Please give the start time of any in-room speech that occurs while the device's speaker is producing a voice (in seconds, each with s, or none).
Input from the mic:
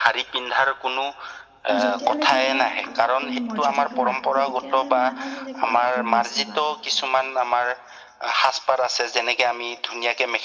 1.7 s